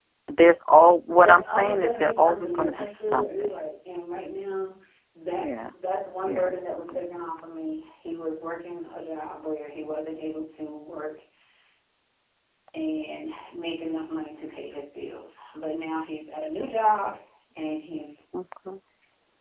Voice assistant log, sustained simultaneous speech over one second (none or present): present